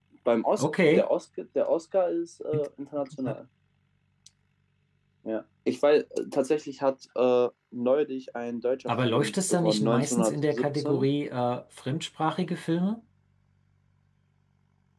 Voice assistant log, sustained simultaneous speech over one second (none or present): present